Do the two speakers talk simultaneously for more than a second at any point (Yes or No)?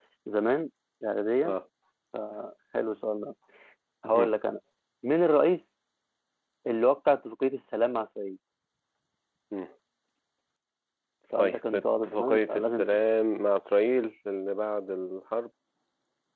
Yes